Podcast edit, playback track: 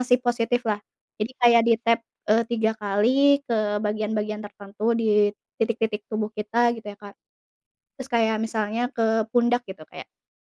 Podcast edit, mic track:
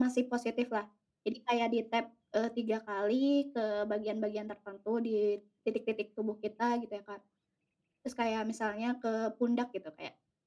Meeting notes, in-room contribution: none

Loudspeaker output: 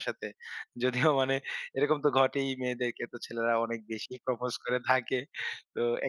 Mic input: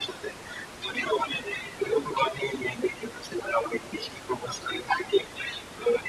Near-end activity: none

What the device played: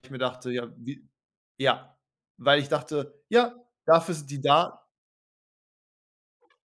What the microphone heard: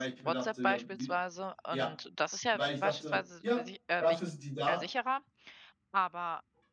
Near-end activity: present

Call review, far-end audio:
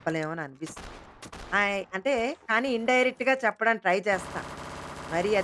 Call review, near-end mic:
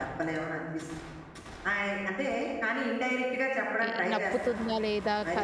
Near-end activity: present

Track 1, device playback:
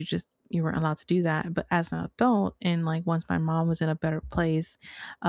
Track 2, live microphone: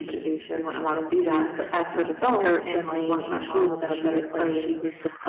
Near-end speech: present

